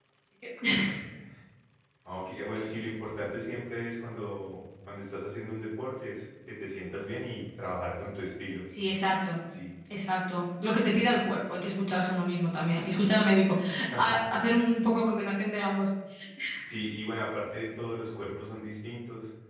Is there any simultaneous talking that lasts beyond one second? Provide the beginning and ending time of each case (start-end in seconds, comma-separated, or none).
none